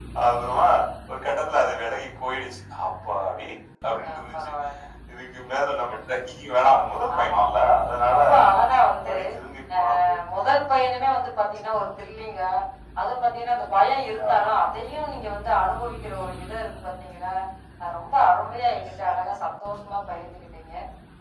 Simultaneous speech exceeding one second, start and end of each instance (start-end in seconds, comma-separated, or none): none